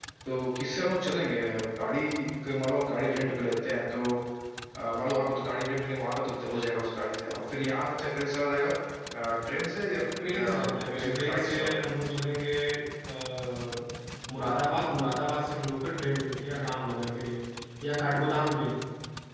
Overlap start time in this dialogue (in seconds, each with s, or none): 10.3 s